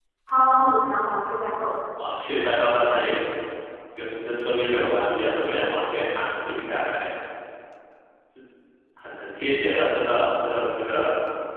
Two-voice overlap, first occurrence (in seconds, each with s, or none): none